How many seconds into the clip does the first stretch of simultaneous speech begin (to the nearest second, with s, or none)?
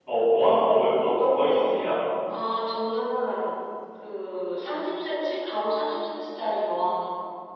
none